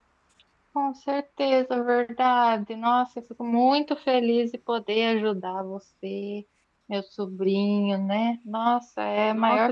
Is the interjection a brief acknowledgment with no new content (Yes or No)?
No